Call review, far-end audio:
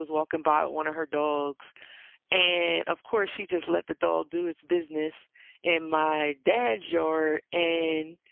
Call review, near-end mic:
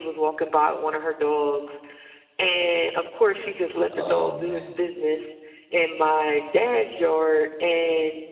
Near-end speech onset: 3.9 s

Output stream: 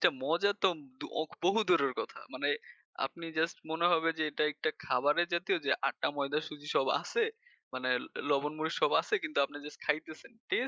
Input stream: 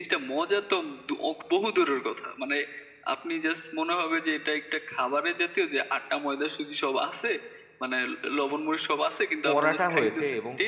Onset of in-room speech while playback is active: 9.4 s

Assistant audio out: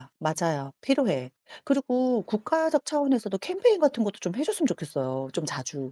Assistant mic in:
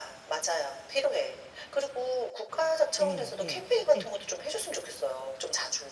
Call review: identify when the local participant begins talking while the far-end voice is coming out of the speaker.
3.0 s

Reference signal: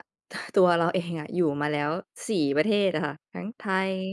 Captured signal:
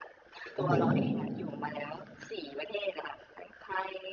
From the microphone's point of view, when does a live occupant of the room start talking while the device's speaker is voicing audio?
0.4 s

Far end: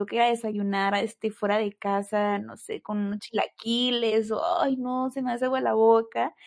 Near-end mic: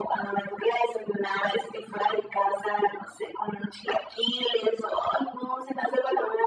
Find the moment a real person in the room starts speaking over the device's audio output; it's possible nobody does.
none

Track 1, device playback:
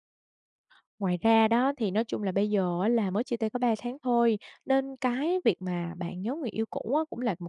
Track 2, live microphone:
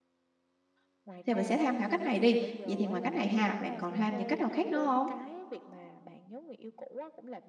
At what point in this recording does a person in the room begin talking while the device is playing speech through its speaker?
1.2 s

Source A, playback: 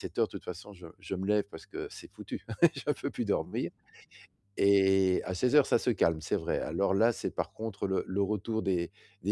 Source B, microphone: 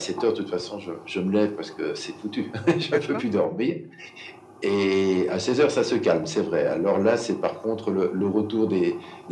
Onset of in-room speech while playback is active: 2.9 s

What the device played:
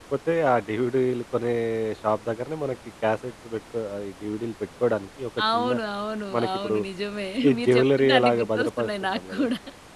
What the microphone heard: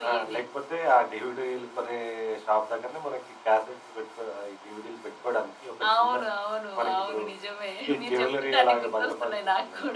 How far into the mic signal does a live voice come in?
none

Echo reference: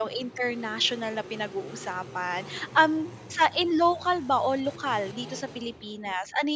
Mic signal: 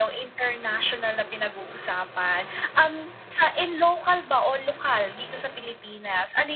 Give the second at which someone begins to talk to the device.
none

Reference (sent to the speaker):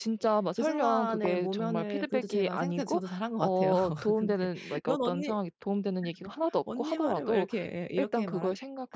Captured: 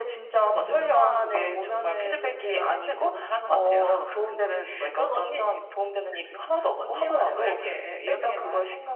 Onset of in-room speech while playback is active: 0.5 s

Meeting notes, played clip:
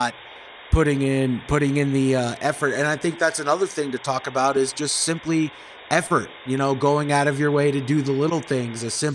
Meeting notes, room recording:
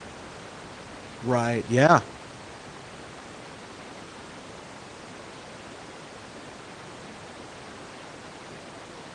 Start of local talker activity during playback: 1.2 s

